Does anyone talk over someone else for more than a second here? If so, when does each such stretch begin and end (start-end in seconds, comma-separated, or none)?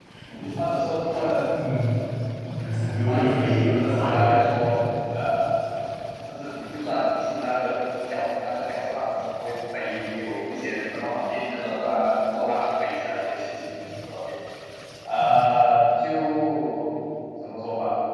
3.1-4.8